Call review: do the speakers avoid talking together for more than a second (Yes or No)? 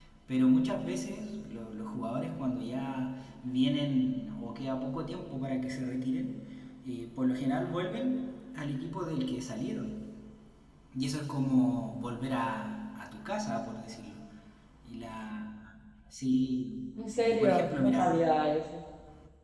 No